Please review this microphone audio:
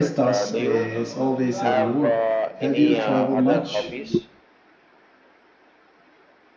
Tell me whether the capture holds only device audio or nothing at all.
No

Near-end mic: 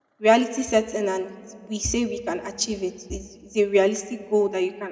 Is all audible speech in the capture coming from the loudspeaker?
No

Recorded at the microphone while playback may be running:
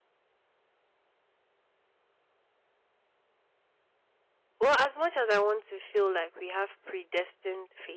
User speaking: Yes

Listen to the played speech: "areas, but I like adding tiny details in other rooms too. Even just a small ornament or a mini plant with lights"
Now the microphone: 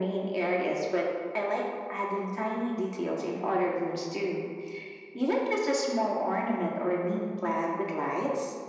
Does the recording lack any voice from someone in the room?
Yes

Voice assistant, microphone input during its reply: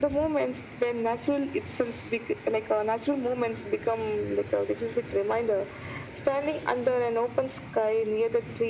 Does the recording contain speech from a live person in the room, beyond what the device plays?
No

